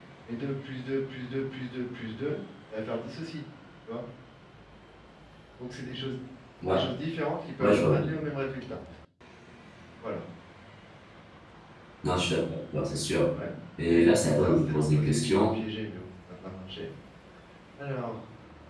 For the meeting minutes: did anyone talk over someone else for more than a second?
Yes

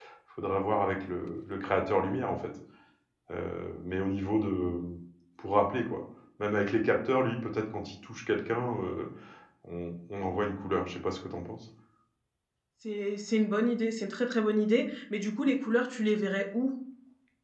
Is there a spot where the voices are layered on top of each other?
No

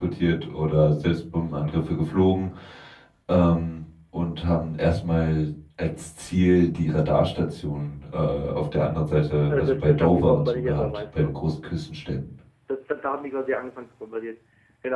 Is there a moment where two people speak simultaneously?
Yes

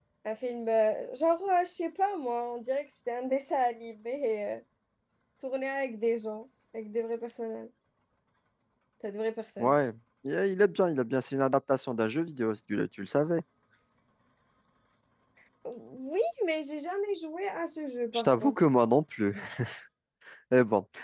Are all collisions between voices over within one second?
Yes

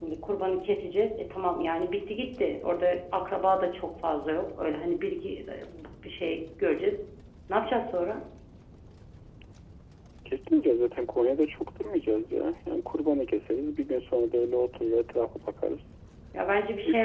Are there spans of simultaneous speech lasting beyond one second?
No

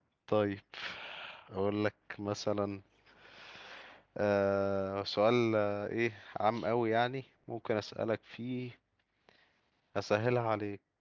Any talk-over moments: No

